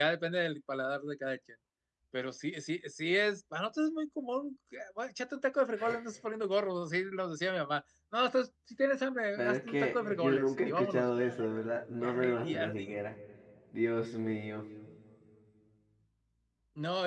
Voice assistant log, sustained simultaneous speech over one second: present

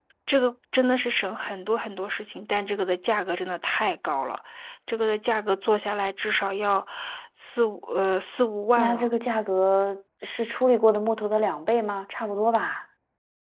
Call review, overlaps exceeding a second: none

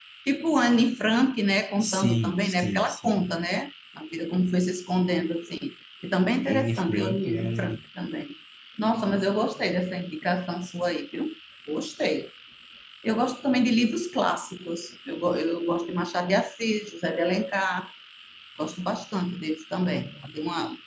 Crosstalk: present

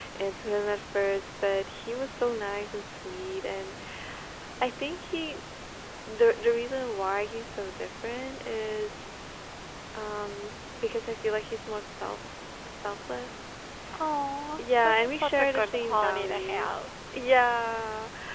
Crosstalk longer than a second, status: present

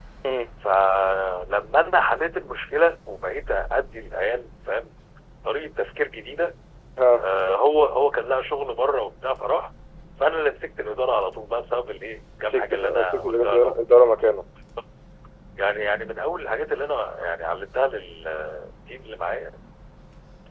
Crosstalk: present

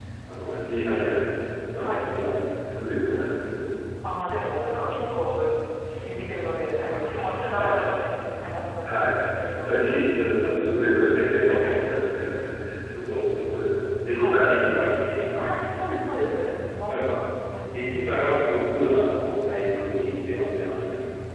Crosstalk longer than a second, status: none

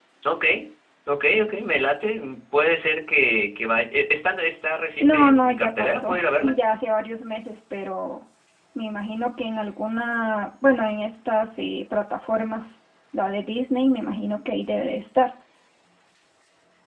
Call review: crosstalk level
present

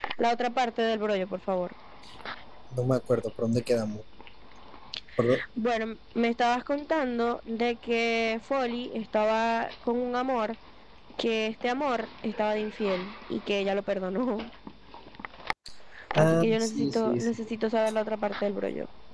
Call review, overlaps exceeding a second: present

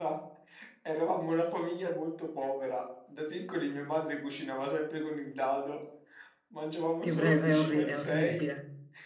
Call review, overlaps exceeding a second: present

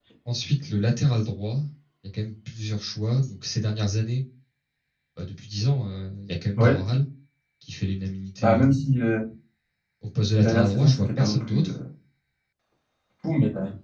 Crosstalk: present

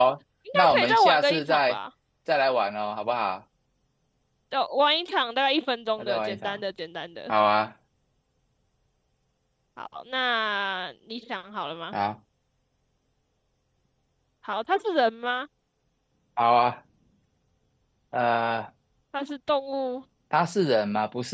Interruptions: present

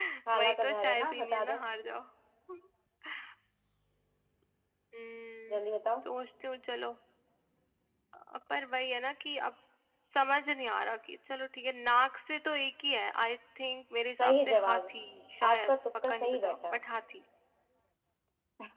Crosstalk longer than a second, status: present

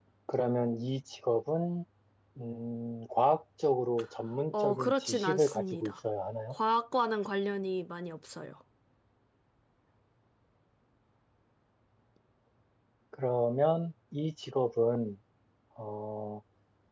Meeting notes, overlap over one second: present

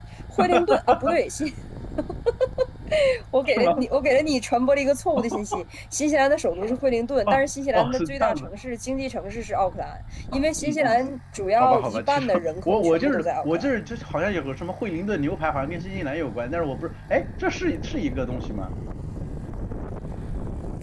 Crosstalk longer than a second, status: present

